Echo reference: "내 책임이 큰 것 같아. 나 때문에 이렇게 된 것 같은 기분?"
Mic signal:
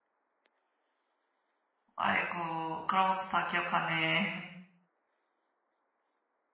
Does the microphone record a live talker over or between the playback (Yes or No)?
Yes